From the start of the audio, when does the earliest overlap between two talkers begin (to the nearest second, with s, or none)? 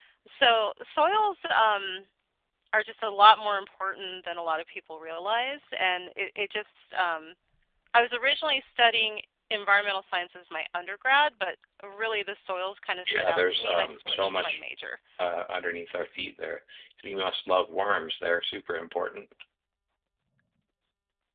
13 s